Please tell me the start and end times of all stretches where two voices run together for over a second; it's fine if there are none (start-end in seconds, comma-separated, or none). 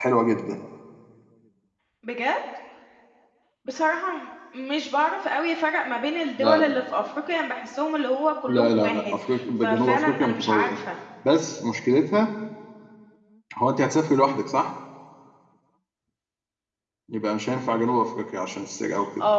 8.5-10.8